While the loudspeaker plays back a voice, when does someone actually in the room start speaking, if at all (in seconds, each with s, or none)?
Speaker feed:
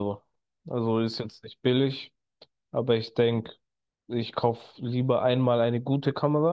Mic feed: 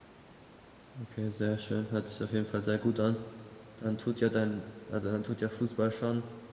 1.0 s